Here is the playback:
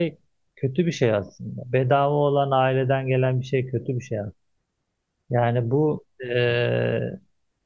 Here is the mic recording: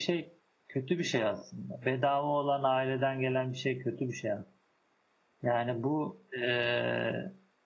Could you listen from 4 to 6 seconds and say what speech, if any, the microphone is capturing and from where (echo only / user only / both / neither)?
echo only